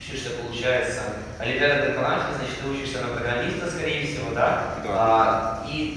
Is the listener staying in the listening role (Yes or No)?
Yes